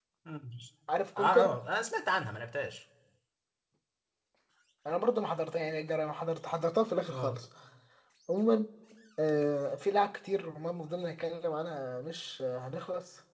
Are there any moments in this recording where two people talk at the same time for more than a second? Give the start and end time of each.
none

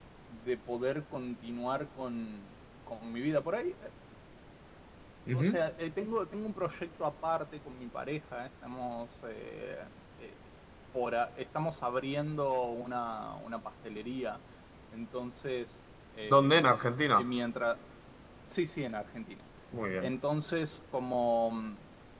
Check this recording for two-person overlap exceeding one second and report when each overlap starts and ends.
none

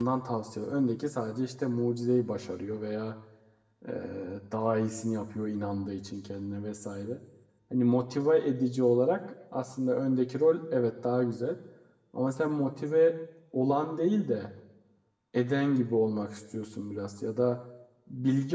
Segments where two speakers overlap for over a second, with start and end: none

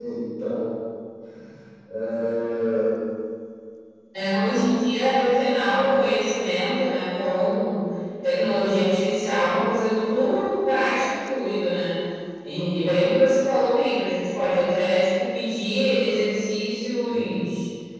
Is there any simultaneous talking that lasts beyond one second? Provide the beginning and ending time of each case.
none

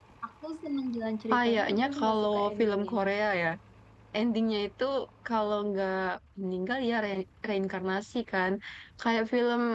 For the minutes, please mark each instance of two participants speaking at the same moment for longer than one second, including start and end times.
1.3-2.9

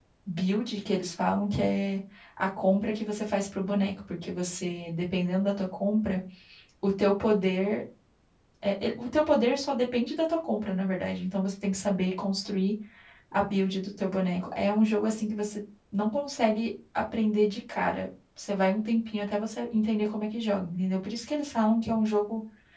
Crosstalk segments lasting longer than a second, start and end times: none

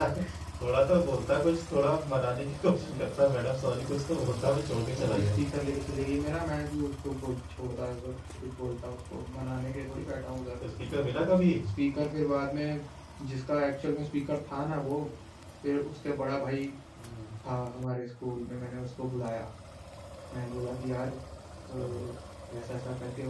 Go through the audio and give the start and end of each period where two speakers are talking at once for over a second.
none

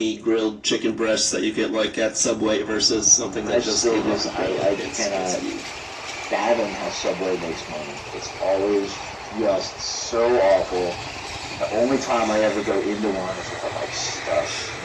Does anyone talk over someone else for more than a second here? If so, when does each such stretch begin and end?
3.4-5.4

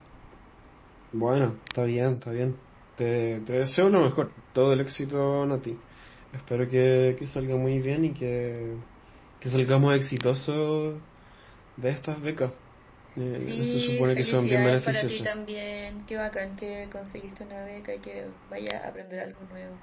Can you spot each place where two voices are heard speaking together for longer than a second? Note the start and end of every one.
13.3-15.3

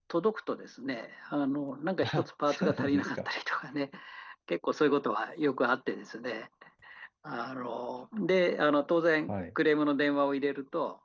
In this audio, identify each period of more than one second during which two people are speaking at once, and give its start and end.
2.0-3.3

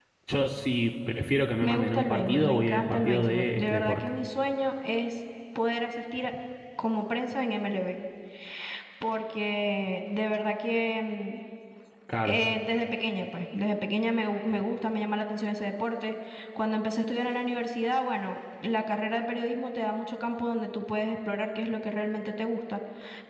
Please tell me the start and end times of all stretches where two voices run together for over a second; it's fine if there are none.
1.6-4.0

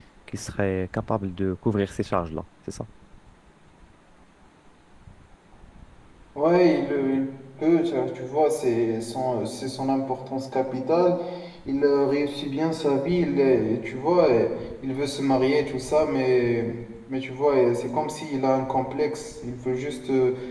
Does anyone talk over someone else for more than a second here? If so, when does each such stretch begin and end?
none

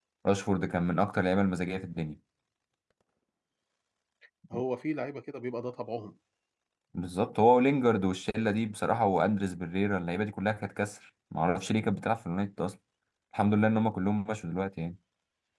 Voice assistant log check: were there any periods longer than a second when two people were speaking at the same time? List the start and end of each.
none

